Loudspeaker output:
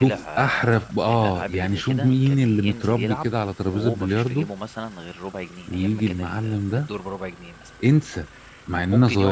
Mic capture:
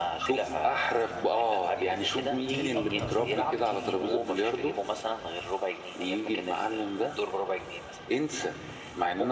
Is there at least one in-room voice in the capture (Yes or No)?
Yes